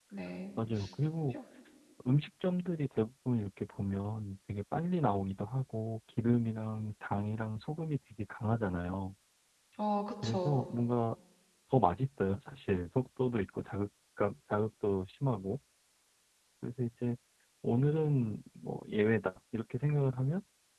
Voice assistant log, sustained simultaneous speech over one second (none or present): none